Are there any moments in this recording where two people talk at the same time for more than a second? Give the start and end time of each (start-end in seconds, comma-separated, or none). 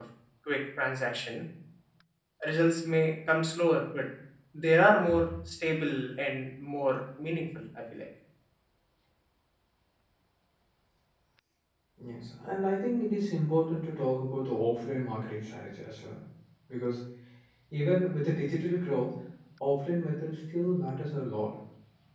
none